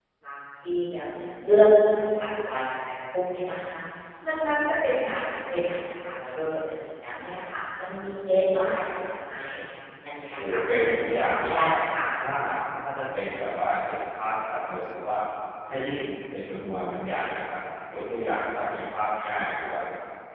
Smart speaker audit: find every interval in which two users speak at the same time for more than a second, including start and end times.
10.4-11.8

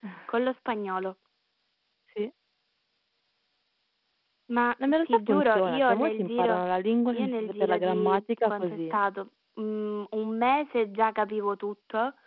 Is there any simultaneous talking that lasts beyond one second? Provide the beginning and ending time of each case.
5.0-6.6, 7.2-9.0

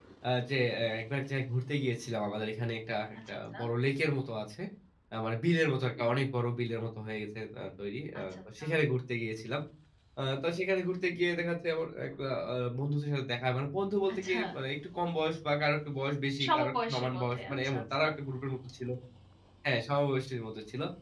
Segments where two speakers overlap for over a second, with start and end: 16.4-18.0

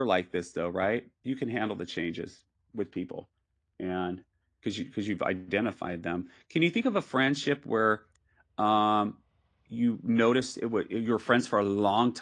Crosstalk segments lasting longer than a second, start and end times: none

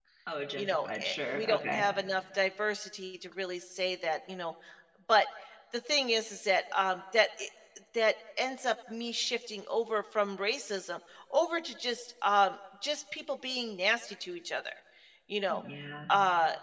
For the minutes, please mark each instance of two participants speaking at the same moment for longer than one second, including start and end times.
0.6-1.8

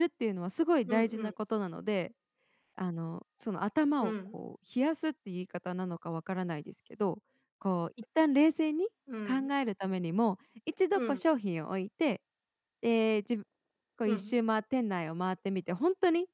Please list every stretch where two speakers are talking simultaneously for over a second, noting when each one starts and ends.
none

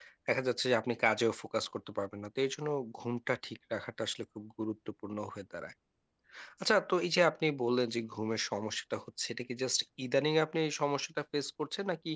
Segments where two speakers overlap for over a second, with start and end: none

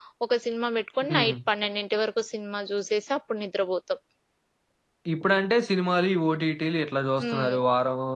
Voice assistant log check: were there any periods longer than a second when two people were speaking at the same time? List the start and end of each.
none

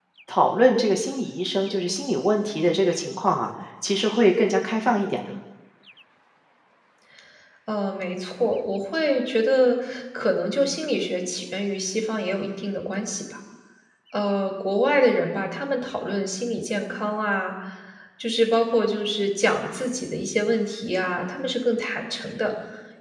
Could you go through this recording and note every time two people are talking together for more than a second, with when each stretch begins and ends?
none

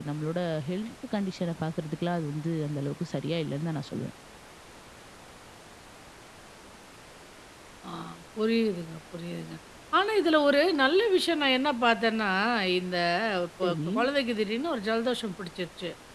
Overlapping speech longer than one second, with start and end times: none

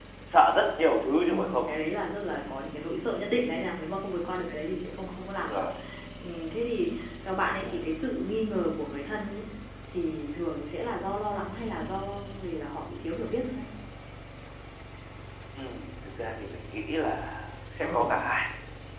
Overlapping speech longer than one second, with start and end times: none

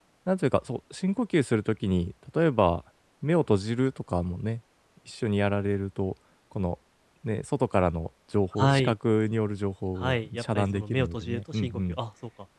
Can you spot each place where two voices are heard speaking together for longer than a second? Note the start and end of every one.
10.0-12.0

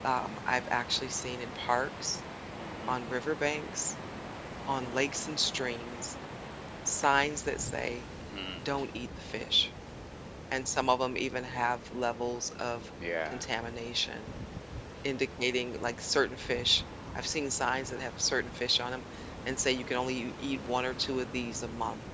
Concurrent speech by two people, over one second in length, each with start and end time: none

